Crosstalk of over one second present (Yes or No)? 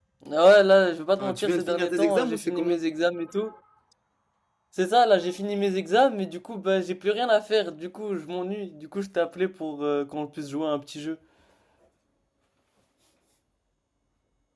Yes